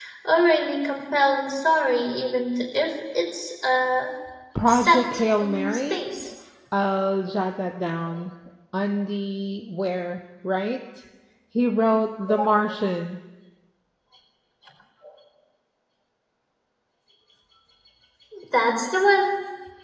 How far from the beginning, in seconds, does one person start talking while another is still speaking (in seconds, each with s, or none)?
4.7 s